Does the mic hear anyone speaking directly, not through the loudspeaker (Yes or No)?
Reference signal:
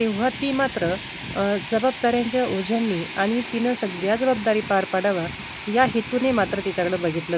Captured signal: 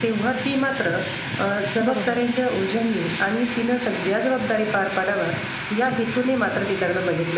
Yes